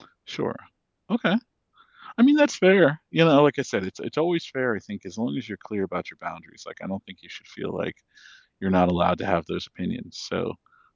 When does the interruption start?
none

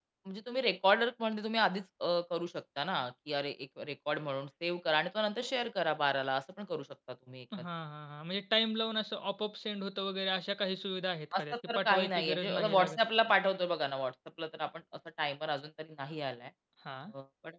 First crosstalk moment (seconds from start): 11 s

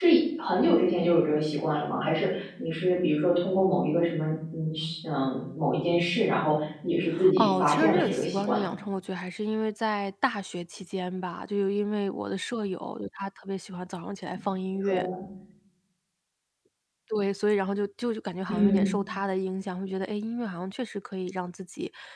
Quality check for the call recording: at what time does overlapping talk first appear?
7 s

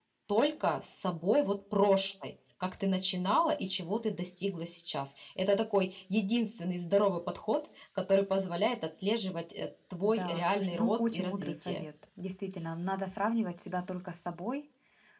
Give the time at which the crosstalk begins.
10 s

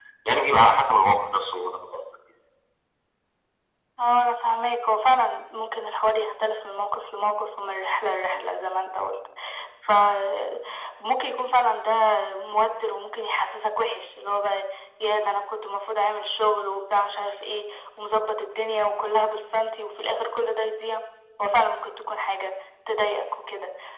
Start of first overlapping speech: none

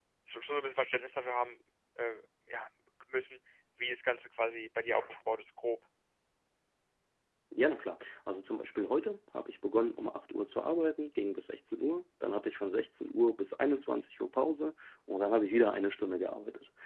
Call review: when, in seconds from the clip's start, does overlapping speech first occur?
none

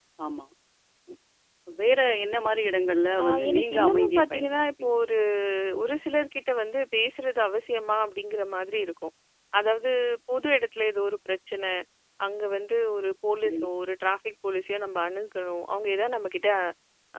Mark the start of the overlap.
3 s

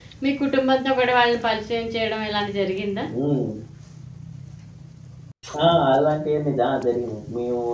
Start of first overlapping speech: none

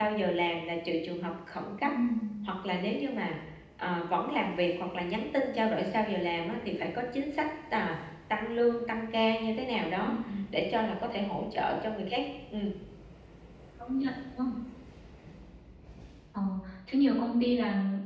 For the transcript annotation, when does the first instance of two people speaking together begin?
none

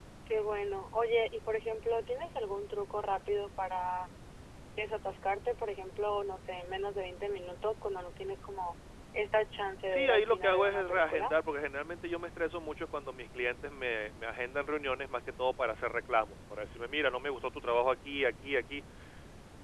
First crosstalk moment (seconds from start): 10 s

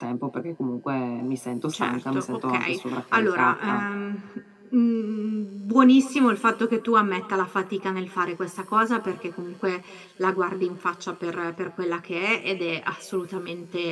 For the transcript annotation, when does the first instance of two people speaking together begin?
2 s

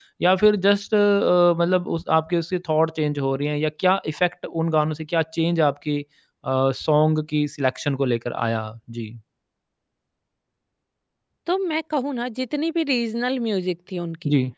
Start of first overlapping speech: none

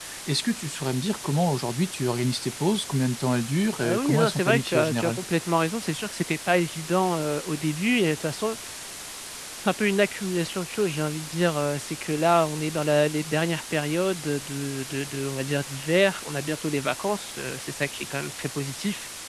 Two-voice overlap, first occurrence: 4 s

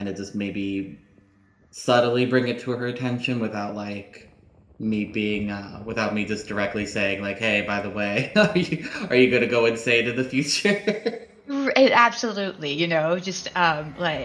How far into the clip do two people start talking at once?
none

